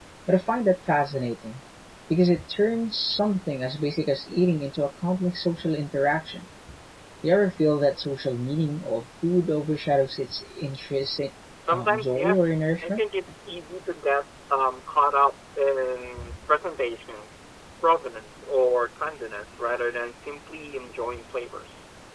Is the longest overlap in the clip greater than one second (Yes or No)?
Yes